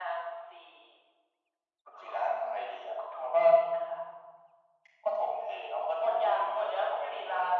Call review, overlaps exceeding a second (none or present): present